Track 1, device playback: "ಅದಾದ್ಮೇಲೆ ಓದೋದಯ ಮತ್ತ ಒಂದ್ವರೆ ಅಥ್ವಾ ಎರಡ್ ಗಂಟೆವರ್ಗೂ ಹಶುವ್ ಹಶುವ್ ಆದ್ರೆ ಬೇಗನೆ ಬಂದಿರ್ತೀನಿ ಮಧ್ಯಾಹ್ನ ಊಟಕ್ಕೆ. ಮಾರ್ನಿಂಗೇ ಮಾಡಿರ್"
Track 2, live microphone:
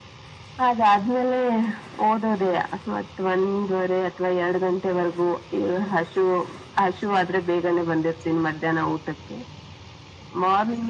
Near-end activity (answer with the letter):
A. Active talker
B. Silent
B